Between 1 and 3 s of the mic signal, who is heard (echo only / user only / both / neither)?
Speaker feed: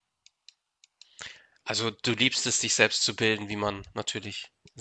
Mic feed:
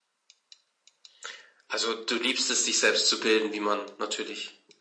echo only